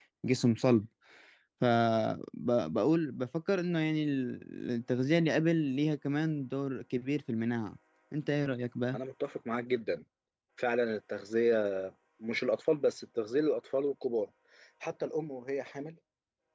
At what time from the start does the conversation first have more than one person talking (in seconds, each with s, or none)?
none